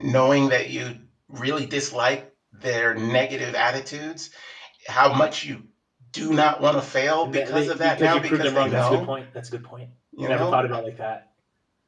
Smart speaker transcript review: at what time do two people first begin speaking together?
7 s

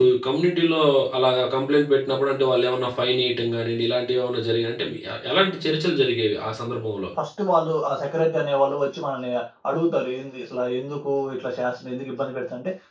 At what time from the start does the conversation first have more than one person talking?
none

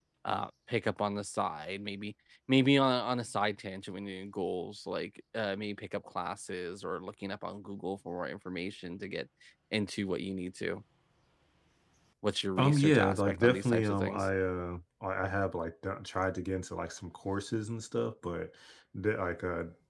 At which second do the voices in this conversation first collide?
13 s

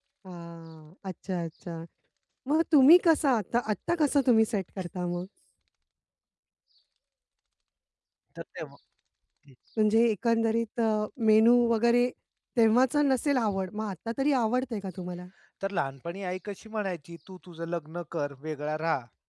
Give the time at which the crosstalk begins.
none

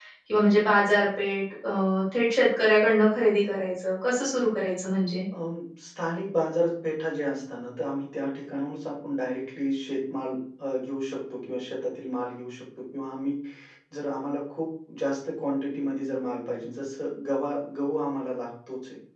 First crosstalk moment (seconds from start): none

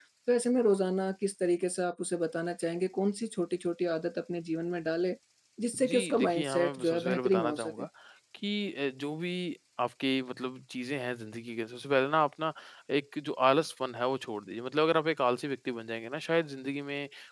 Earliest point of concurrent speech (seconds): 6 s

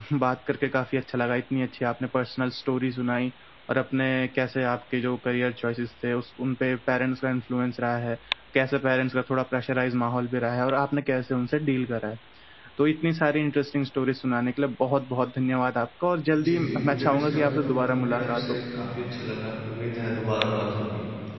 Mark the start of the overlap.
16 s

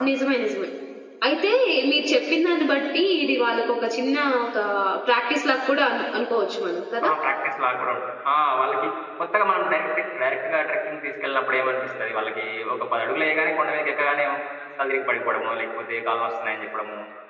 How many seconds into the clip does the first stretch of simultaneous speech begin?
none

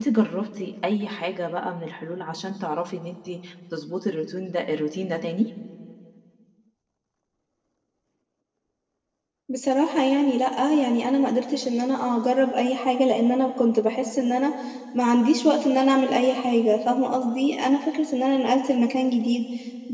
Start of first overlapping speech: none

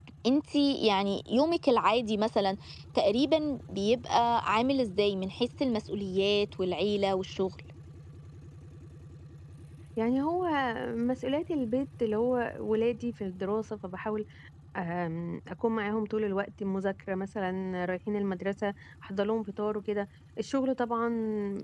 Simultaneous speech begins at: none

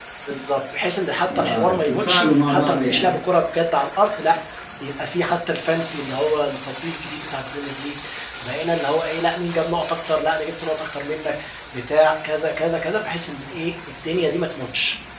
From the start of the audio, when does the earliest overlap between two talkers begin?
1 s

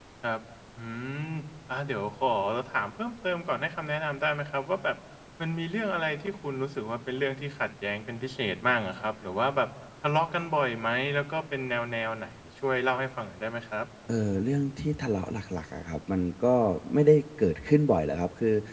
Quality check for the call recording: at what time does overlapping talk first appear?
none

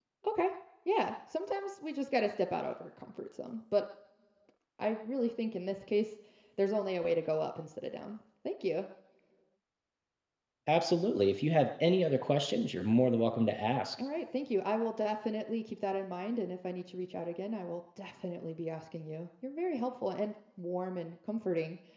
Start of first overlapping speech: none

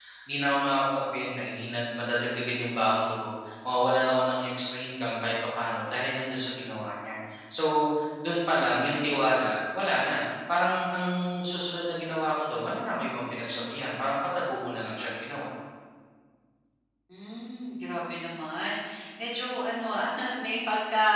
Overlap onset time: none

